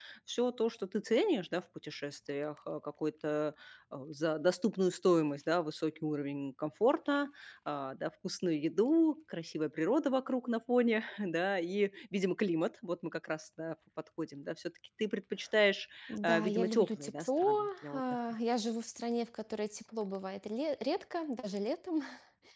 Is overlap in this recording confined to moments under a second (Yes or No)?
No